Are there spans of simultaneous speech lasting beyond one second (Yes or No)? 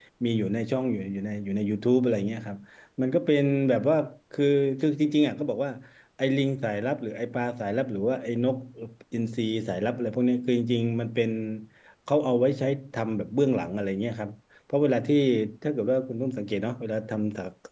No